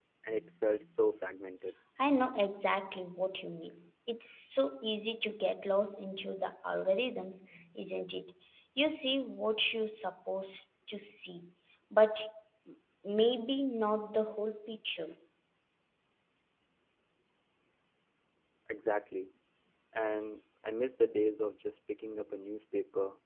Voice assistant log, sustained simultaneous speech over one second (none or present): none